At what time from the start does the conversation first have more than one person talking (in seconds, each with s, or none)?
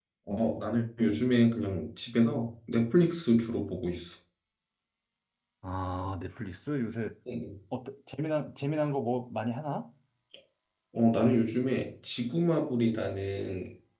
none